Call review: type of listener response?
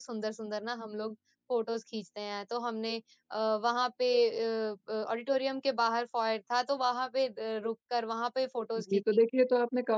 taking over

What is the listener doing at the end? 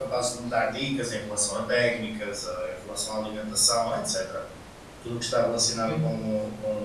listening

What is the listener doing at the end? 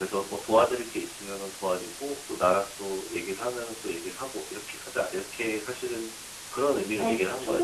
taking over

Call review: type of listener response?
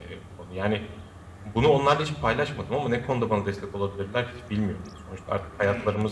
listening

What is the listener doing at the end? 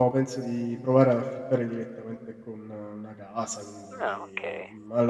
listening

